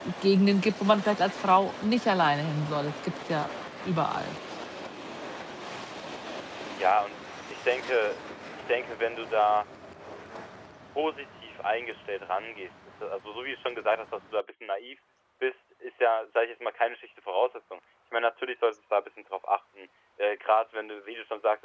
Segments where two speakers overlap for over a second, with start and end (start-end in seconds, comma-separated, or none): none